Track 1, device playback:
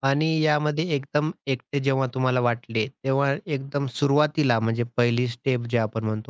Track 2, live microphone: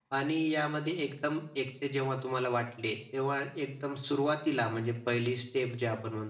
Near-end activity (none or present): none